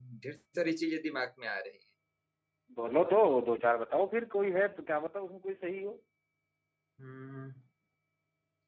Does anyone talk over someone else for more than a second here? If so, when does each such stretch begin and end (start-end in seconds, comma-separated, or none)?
none